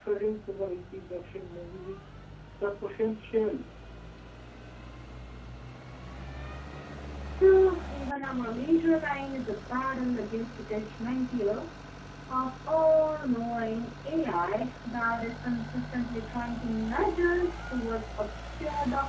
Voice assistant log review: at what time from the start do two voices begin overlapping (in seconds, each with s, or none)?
none